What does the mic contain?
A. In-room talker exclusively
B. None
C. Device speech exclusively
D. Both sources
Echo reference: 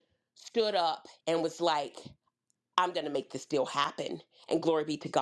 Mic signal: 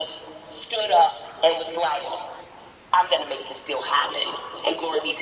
C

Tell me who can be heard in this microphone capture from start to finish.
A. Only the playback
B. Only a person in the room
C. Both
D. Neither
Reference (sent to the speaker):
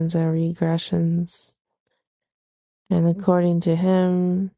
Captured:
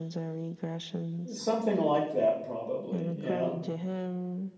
C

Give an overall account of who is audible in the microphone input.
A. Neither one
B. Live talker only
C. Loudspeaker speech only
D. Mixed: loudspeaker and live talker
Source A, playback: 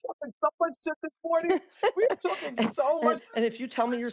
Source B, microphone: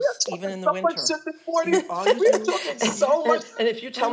D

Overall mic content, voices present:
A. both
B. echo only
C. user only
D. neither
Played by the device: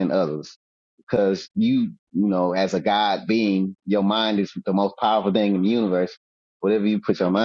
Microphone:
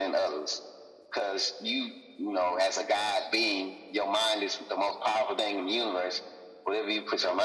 B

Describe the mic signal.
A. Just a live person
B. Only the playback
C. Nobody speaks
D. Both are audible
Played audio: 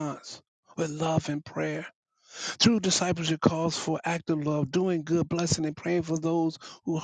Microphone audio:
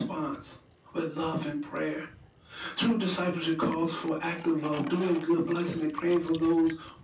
B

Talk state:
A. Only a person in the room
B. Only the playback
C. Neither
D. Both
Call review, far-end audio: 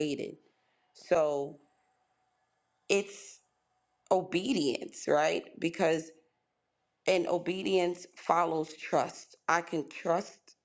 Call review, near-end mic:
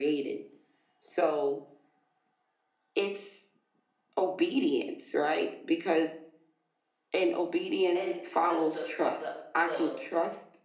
D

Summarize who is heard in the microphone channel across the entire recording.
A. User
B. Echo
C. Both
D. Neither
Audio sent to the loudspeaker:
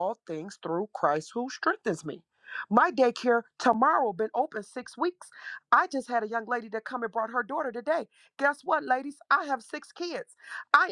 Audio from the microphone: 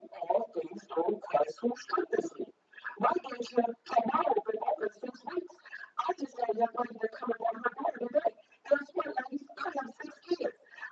B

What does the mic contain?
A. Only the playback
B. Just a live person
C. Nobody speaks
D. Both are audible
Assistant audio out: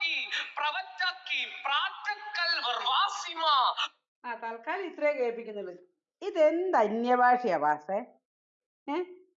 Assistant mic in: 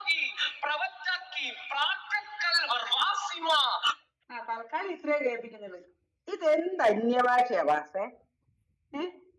A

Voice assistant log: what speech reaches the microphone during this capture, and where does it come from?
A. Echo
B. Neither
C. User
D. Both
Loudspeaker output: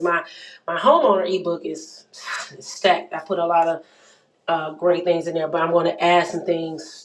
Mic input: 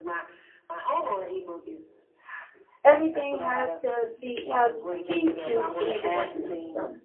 D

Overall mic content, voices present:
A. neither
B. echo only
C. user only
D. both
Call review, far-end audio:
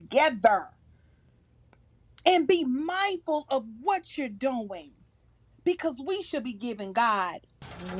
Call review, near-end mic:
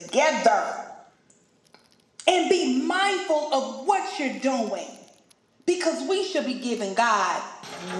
B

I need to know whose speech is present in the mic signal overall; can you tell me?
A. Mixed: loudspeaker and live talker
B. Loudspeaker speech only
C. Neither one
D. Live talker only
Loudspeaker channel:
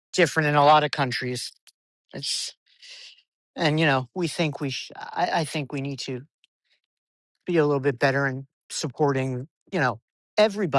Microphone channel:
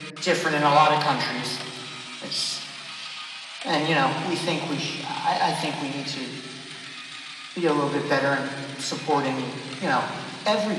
B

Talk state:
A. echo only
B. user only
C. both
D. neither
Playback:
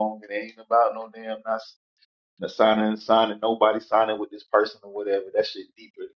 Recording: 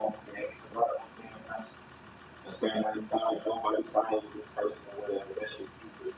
A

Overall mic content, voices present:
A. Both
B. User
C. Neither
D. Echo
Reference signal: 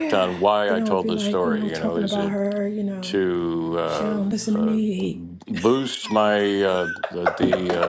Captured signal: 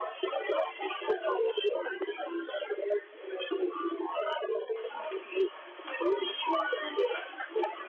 D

